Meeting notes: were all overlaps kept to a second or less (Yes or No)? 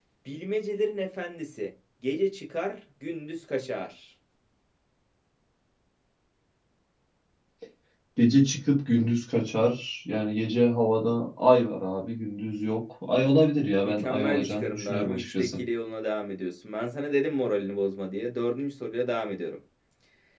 No